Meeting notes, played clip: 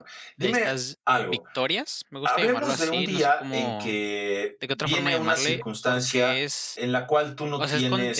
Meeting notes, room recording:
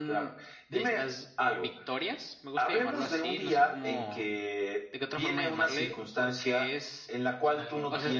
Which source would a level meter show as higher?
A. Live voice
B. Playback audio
B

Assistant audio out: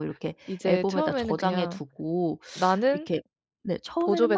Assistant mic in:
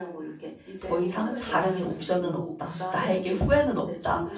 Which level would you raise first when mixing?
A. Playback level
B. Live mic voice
A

